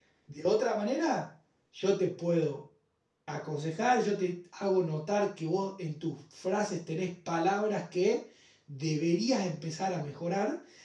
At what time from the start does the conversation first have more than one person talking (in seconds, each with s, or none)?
none